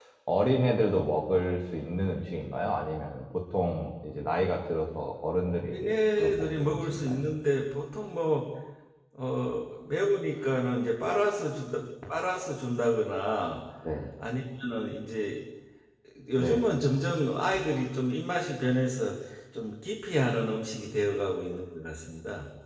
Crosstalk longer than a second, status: present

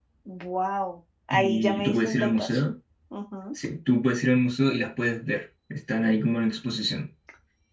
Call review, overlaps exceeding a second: present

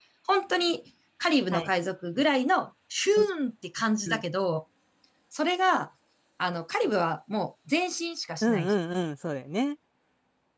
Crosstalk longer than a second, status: none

